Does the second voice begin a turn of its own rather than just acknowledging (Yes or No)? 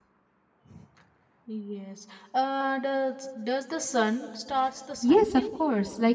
Yes